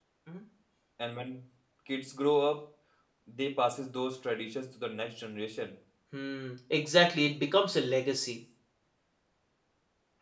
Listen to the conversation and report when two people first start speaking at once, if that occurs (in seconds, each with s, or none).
none